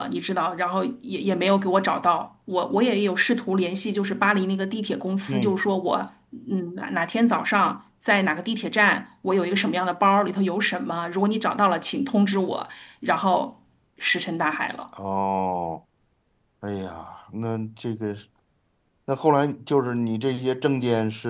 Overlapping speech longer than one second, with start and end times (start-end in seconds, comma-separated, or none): none